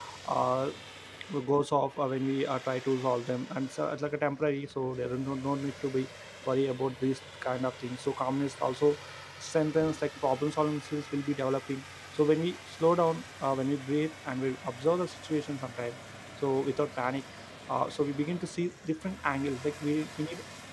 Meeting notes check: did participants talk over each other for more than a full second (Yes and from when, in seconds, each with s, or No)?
No